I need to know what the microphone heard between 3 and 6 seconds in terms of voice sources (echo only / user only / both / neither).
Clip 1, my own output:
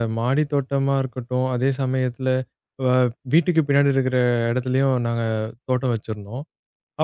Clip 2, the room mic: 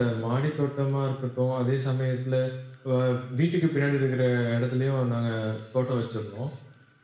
echo only